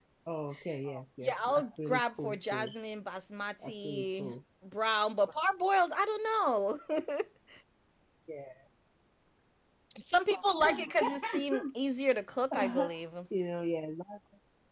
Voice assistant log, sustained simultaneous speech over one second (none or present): present